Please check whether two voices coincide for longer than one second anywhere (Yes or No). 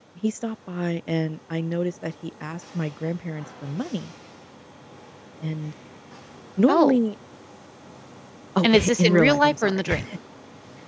Yes